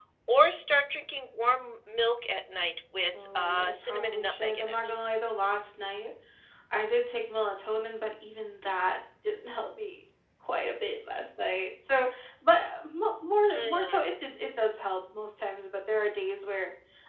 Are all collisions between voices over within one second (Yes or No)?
No